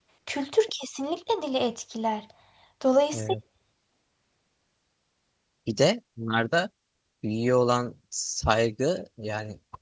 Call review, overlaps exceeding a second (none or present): none